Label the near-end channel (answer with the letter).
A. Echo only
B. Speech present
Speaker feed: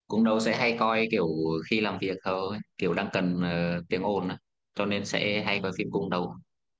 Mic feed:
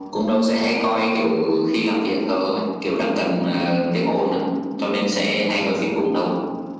A